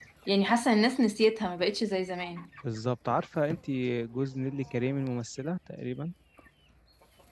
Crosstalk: none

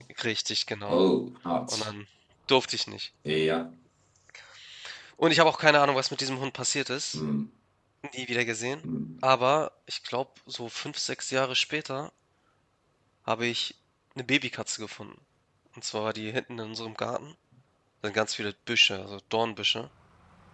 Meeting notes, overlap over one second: none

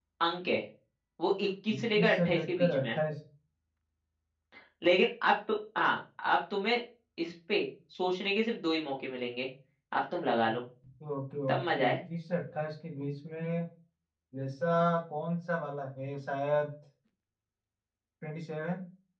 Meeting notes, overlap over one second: present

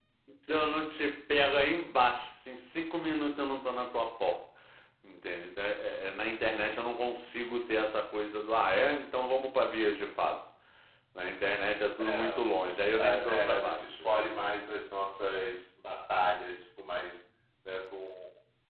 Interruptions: present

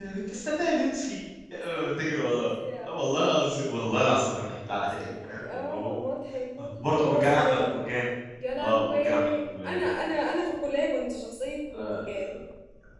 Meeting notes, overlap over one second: present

